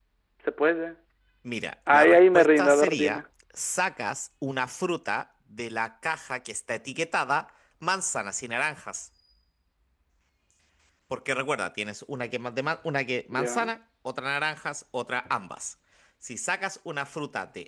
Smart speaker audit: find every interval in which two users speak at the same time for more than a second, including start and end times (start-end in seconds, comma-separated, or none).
1.9-3.2